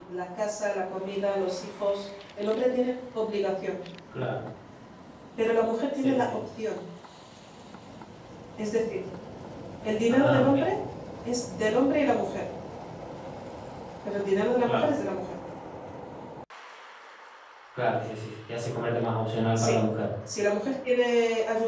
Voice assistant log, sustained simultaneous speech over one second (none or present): none